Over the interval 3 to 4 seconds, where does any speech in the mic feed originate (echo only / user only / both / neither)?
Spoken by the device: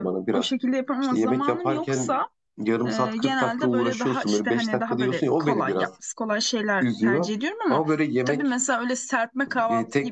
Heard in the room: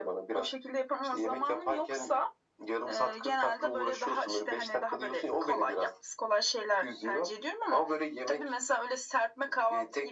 echo only